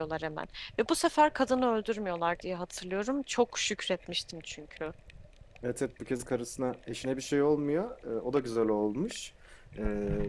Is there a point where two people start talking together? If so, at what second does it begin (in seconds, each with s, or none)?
none